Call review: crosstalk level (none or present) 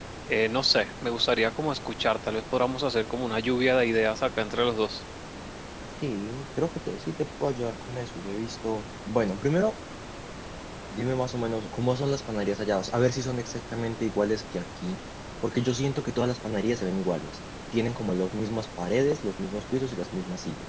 none